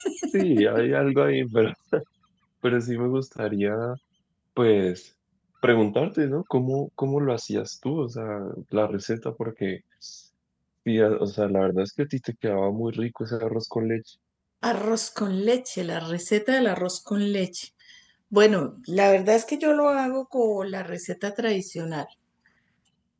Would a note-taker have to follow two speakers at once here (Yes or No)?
No